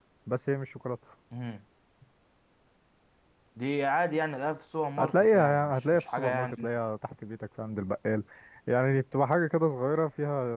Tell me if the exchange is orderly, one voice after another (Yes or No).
No